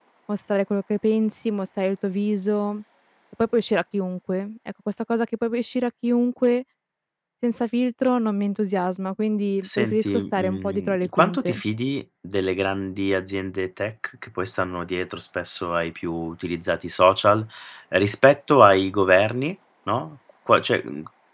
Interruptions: present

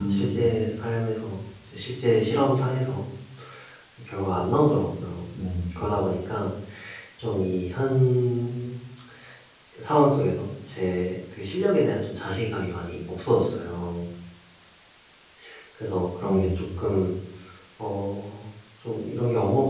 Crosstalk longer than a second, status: none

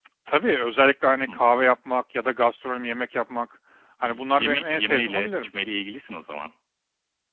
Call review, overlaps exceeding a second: present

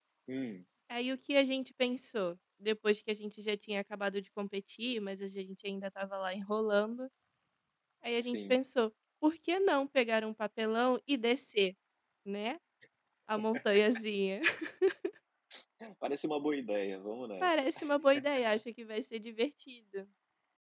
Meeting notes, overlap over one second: none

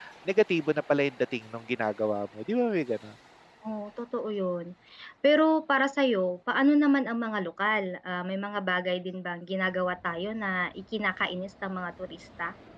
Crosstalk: none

